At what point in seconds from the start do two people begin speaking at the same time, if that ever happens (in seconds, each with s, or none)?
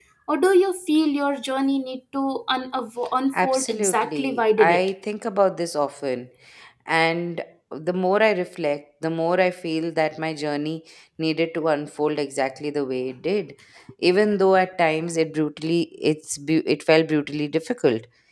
3.3 s